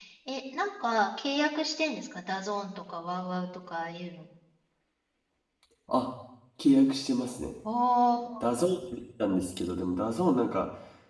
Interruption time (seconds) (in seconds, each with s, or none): none